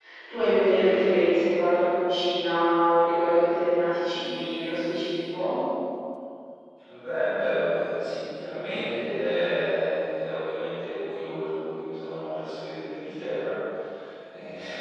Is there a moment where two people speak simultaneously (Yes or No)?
No